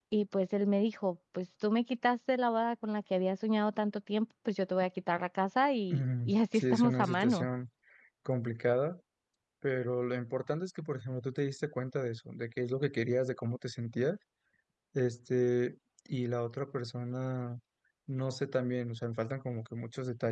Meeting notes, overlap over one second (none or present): present